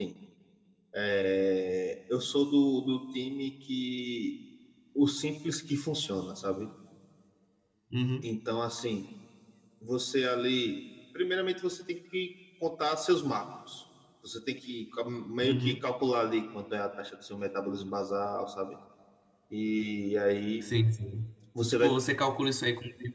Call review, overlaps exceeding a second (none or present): none